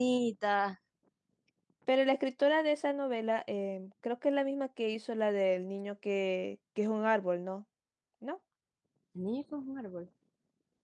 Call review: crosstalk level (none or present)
none